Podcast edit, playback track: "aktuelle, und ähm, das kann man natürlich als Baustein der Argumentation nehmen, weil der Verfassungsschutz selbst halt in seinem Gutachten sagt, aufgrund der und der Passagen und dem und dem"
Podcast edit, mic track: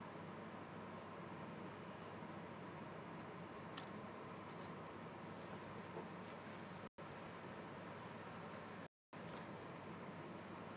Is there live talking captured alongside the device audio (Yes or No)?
No